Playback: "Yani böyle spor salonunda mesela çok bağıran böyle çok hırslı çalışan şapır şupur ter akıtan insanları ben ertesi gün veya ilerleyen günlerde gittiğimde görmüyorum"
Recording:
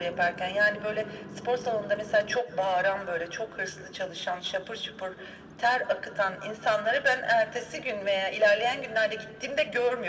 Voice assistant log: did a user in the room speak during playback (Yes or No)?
No